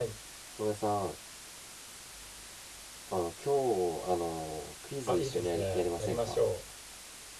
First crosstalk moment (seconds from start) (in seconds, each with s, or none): 5.1 s